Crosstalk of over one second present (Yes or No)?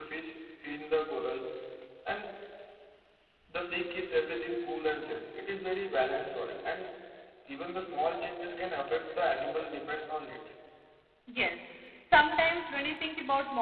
No